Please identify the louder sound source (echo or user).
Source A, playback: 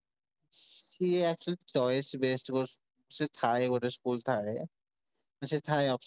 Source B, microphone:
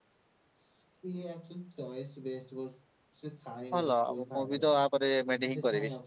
user